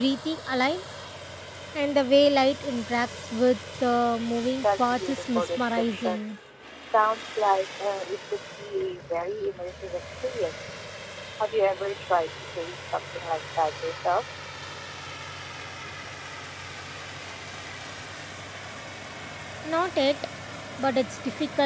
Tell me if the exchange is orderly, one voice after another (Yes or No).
No